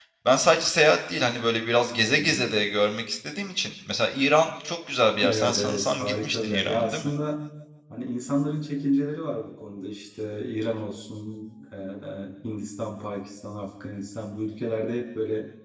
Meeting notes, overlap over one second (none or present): present